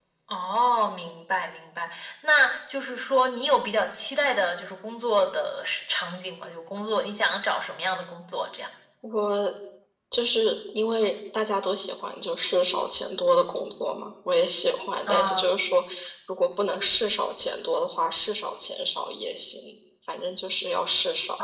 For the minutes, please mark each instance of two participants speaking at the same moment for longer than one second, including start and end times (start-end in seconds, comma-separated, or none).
none